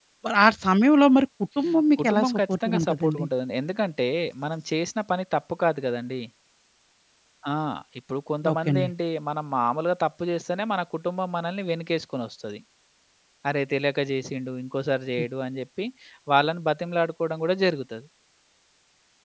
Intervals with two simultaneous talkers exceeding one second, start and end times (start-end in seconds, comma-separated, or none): 2.0-3.2